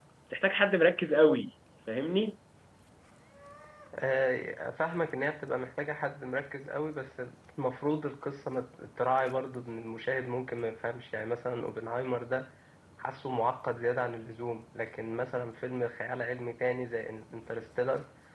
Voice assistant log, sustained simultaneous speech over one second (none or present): none